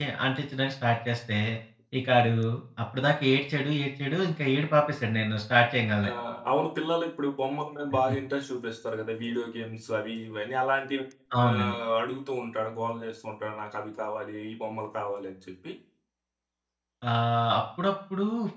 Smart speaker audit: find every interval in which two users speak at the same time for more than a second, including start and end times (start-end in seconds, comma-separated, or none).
none